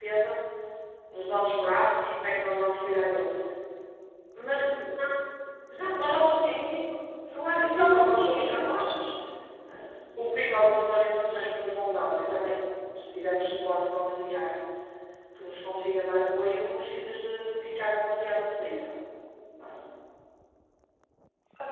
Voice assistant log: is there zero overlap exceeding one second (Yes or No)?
No